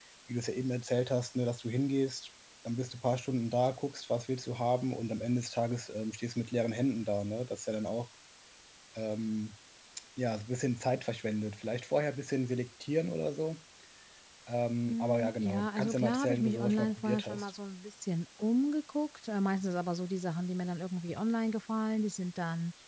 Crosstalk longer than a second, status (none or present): present